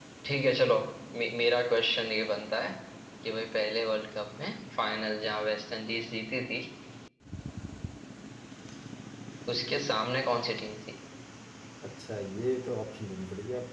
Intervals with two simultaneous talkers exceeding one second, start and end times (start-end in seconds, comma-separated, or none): none